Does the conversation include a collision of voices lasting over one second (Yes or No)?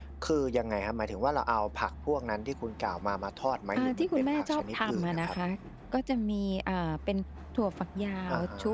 Yes